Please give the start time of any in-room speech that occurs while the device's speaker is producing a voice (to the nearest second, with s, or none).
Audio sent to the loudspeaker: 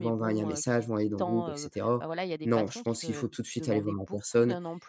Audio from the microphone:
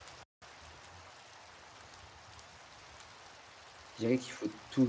4 s